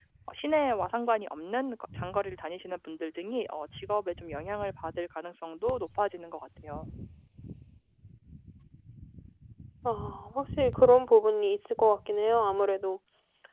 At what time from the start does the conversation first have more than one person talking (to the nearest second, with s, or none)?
none